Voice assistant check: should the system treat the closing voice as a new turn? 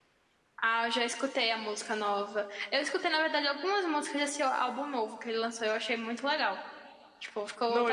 No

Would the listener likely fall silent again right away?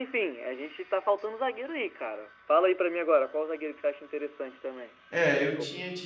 No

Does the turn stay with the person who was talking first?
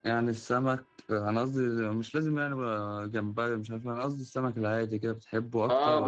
No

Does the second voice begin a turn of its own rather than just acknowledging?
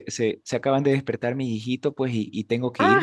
No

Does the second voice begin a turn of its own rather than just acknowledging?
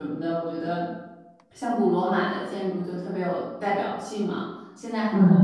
No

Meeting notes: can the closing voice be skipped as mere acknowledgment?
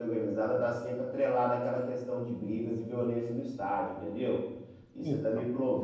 Yes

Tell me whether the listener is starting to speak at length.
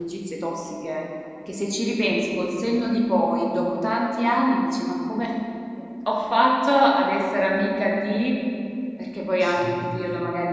No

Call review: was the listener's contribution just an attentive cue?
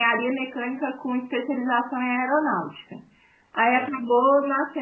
Yes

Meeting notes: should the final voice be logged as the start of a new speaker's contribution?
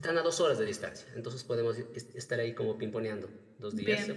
No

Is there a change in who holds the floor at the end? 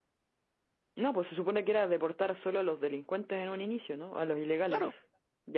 Yes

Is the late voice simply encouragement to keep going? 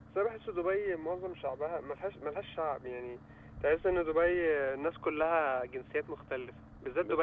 Yes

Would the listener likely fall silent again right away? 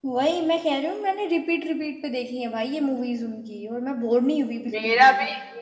No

